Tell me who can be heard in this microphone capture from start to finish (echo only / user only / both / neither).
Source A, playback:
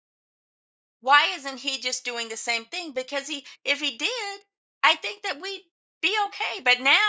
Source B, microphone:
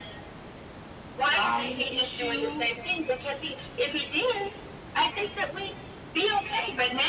both